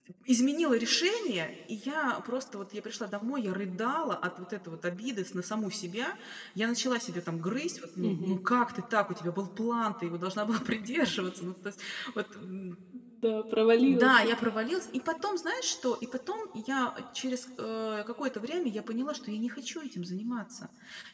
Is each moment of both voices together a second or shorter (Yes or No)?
Yes